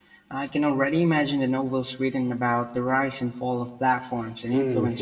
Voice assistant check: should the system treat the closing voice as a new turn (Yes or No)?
Yes